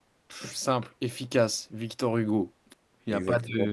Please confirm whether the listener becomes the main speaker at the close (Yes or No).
Yes